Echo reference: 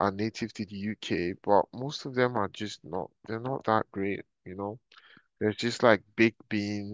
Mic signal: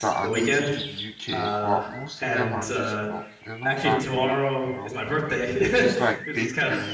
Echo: present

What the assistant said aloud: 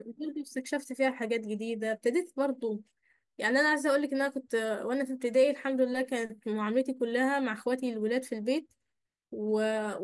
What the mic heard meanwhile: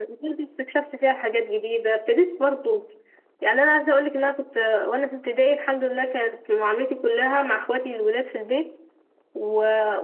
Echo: present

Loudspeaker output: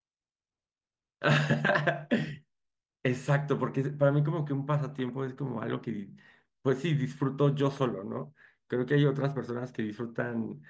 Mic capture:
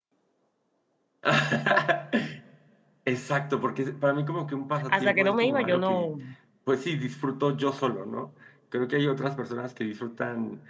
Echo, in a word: present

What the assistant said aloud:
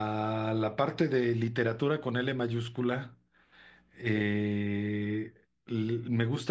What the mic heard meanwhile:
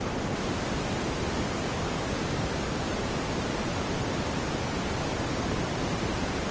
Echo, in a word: none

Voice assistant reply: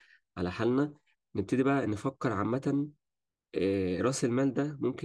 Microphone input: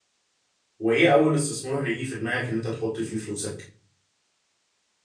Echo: none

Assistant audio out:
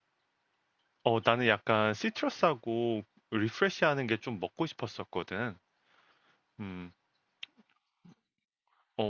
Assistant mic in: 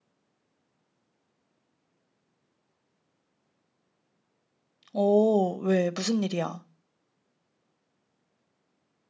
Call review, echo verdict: none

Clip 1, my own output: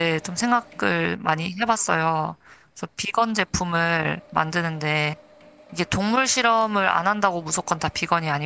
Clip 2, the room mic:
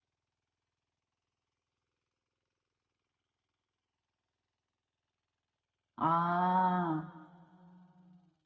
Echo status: none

